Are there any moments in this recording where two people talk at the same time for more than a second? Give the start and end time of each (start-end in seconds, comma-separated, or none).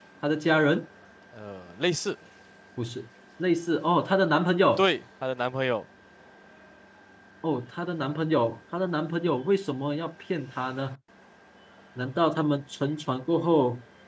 none